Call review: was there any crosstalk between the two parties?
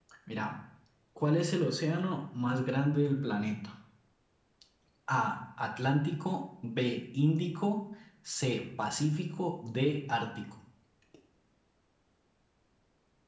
No

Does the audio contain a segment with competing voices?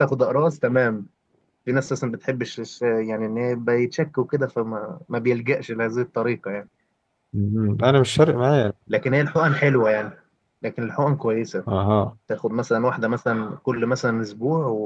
No

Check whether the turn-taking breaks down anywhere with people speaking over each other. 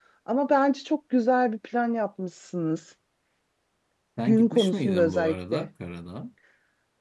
Yes, from 4.2 s

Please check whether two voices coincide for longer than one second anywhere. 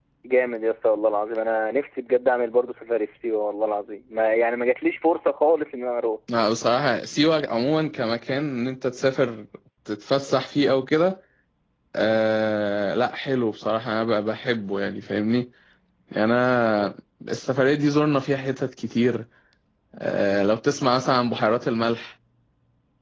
No

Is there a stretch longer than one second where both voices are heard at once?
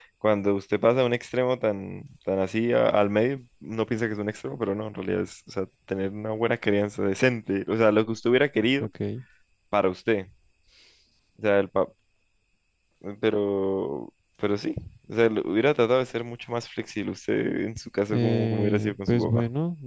Yes, from 18.1 s

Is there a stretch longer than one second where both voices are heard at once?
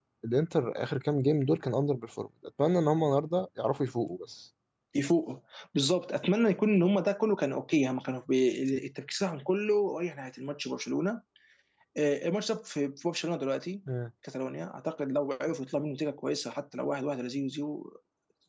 No

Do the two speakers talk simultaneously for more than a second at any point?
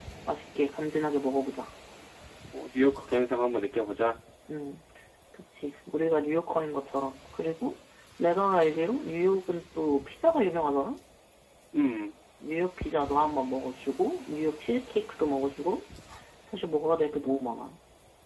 No

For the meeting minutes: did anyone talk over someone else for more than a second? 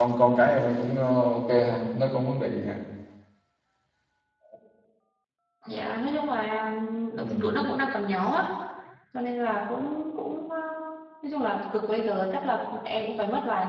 No

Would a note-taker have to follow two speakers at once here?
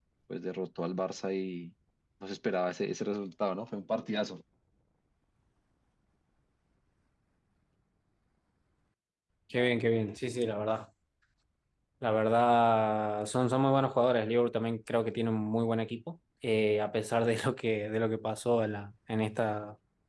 No

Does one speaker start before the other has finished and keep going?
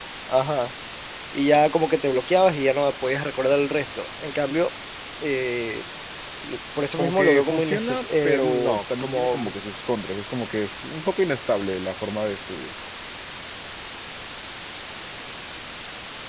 Yes, from 7.0 s

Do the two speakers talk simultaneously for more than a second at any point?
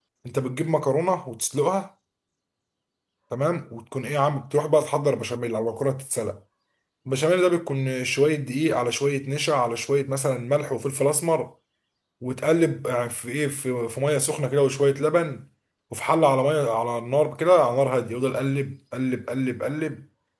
No

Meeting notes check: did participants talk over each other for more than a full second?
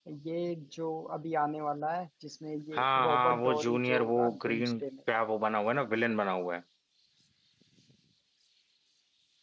Yes, from 2.7 s

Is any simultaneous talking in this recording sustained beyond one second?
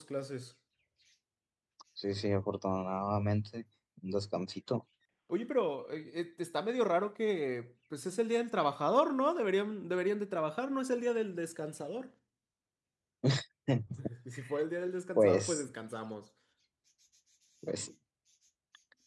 No

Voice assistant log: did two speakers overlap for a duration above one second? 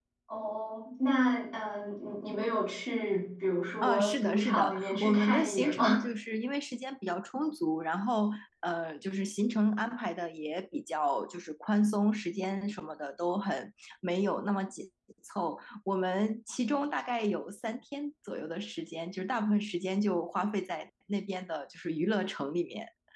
Yes, from 3.8 s

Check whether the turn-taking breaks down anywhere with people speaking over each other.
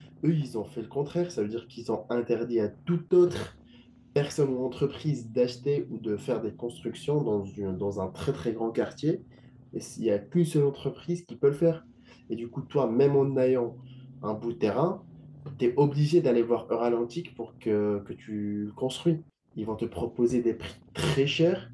No

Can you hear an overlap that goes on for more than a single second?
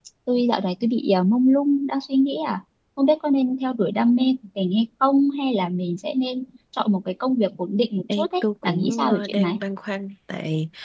Yes, from 8.1 s

